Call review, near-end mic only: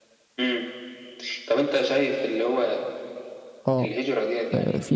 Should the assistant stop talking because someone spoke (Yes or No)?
Yes